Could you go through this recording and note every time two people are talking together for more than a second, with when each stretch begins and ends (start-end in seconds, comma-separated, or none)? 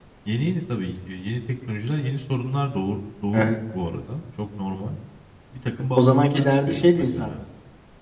6.0-7.3